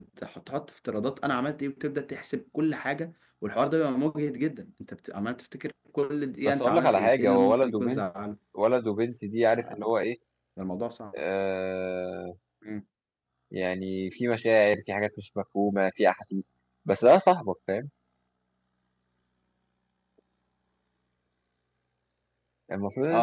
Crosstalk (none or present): present